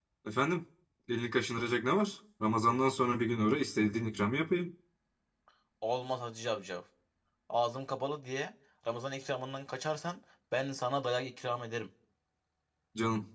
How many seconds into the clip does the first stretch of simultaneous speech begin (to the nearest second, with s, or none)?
none